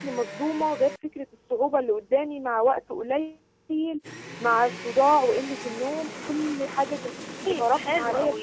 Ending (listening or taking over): taking over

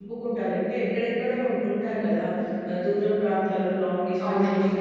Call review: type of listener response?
listening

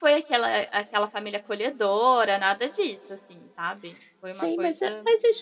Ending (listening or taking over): taking over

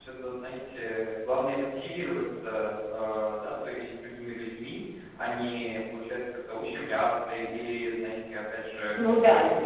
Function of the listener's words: taking over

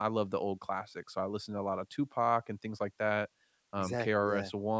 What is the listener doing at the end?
listening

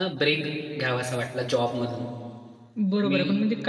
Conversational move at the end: taking over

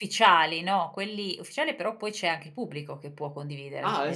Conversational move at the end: taking over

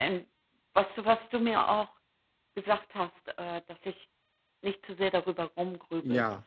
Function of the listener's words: taking over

